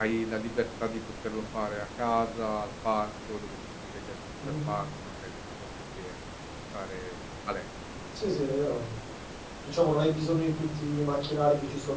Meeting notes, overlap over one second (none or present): none